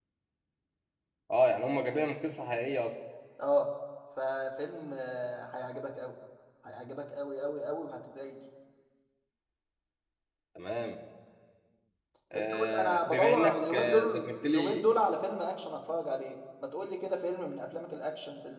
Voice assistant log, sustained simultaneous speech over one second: present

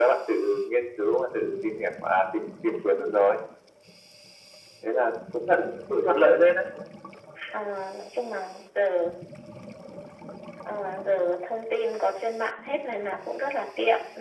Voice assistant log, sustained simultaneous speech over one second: none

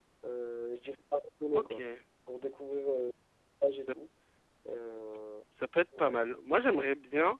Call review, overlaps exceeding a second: none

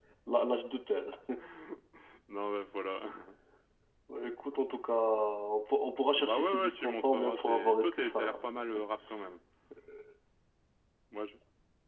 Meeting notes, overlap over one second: present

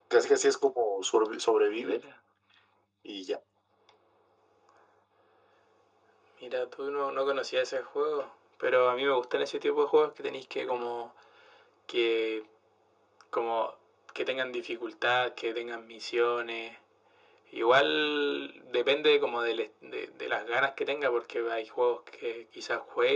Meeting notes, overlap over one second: none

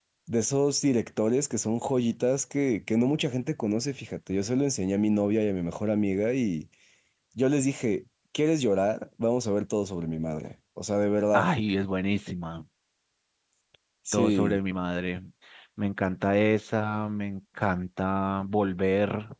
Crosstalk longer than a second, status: none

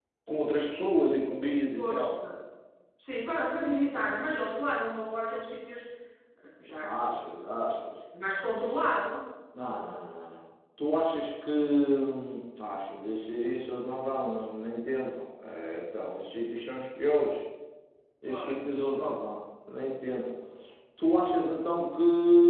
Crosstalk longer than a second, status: none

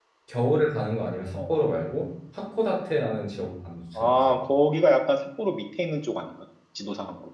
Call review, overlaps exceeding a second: none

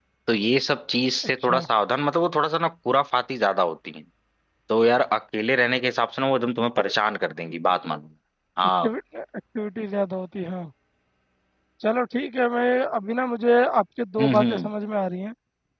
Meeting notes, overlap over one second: none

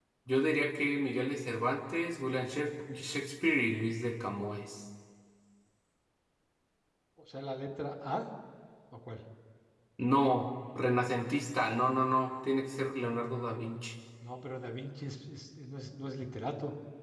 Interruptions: none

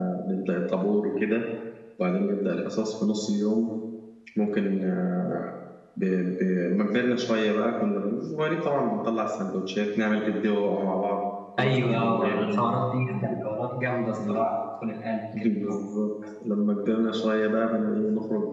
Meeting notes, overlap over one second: present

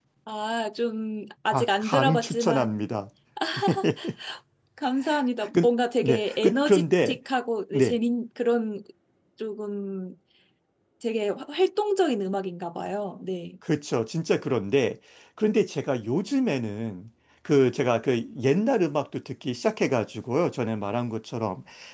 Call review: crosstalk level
present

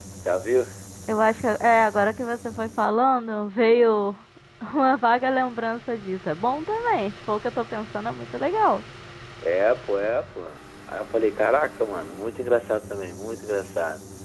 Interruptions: none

